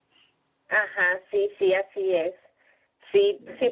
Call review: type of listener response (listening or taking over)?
listening